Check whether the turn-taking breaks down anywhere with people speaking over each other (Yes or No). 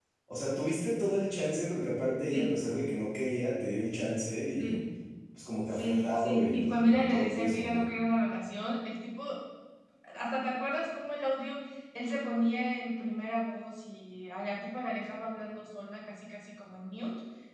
Yes